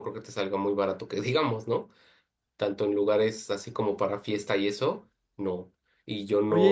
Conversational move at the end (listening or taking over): taking over